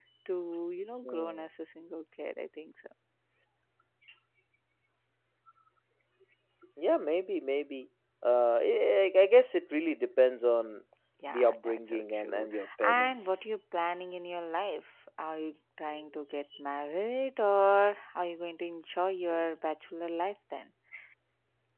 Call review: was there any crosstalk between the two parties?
Yes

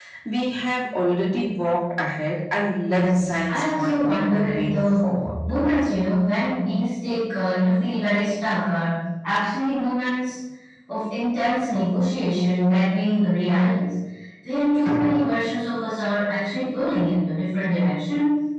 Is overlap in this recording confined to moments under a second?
No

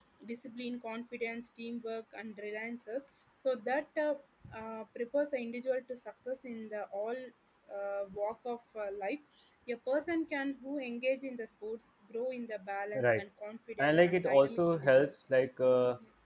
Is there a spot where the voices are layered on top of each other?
Yes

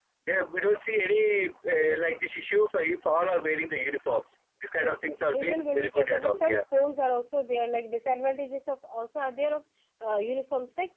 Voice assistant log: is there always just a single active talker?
No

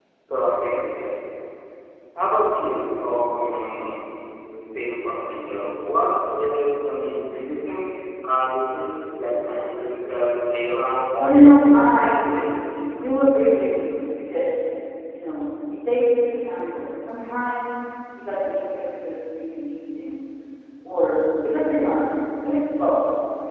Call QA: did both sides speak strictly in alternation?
No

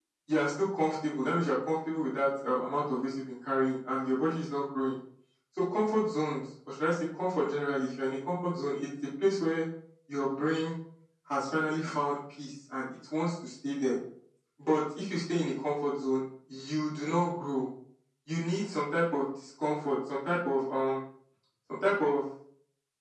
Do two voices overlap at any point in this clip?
No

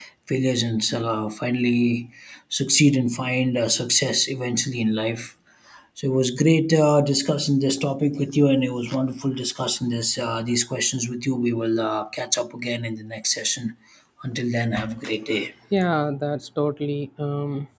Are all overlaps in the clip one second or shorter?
Yes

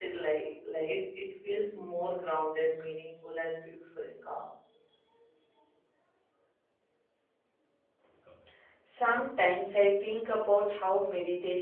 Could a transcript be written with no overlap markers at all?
Yes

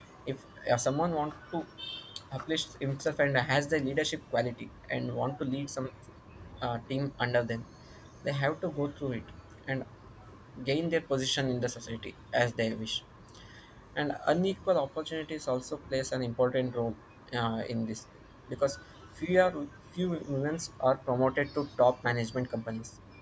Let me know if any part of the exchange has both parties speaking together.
No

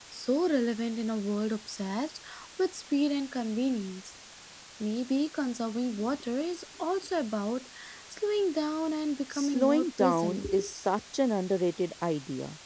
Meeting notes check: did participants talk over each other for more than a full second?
Yes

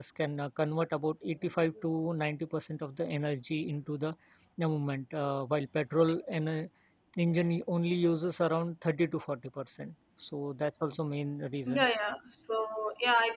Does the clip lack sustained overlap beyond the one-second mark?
Yes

